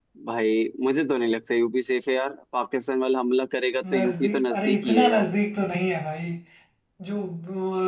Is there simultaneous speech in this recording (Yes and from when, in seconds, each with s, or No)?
Yes, from 3.8 s